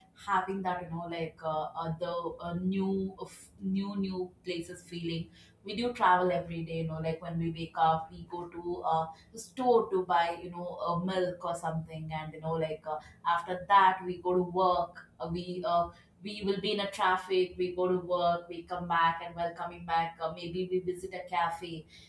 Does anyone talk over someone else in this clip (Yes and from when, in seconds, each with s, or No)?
No